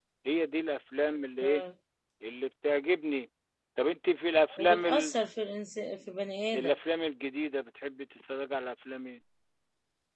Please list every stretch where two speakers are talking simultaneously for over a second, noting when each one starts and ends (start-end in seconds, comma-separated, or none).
none